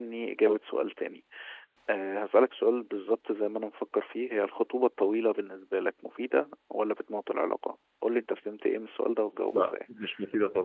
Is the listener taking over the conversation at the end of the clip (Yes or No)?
Yes